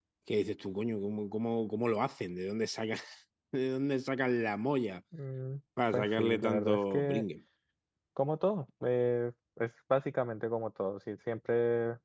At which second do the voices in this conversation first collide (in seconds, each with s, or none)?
5.9 s